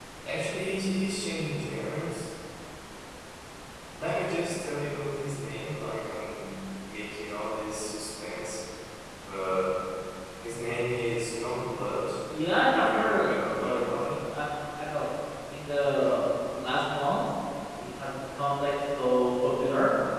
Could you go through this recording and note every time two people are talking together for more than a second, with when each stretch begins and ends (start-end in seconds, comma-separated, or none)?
12.7-14.2